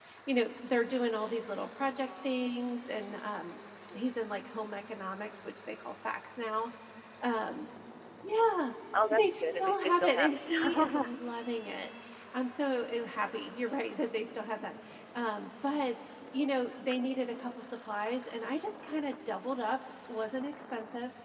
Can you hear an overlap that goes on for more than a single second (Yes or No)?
Yes